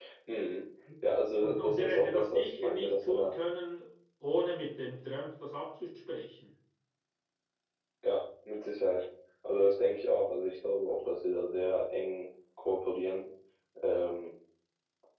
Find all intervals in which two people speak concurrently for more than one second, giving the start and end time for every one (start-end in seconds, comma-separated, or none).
1.4-3.3